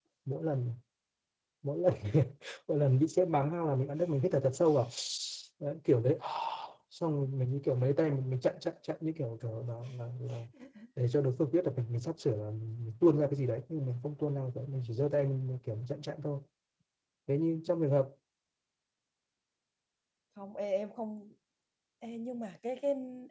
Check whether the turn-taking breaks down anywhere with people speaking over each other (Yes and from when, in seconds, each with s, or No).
No